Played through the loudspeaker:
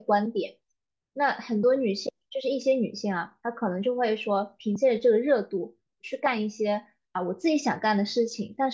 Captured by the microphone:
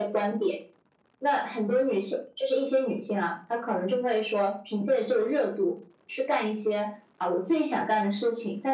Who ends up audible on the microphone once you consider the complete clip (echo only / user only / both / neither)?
echo only